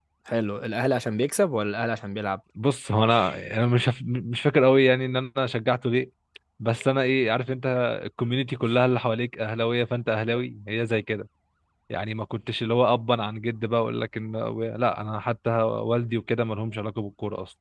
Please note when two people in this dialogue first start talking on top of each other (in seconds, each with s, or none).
none